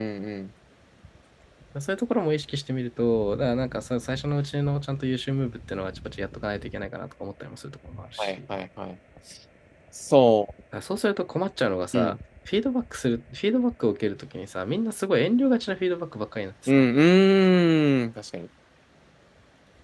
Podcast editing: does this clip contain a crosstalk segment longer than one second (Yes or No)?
No